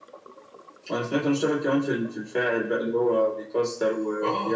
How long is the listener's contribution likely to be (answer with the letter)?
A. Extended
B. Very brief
A